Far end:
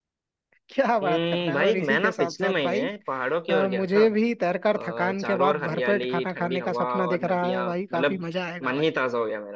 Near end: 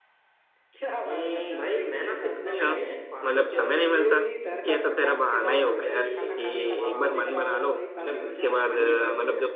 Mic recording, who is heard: both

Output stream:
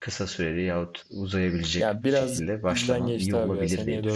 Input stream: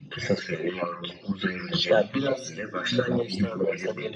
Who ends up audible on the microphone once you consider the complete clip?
echo only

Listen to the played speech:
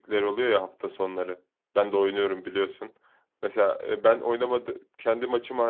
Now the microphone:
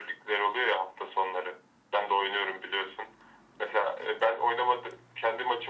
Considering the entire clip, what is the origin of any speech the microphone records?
echo only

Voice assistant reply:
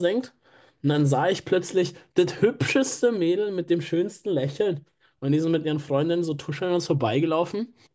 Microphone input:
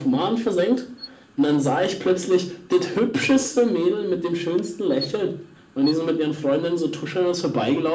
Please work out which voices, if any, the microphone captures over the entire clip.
echo only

